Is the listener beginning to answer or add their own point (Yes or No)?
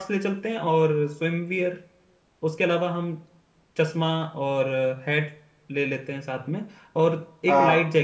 No